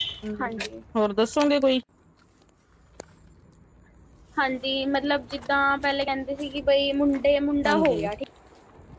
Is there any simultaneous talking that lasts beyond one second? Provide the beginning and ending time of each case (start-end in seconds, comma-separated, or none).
none